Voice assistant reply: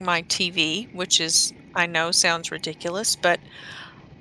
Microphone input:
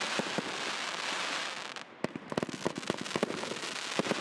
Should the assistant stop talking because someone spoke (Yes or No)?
No